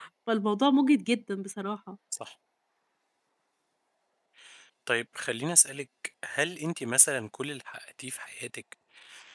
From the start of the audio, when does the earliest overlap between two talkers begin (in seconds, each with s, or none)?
none